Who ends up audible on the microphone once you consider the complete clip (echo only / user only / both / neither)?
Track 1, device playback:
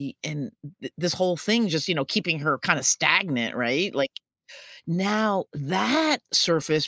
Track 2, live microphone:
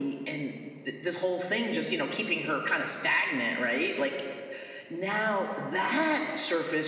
echo only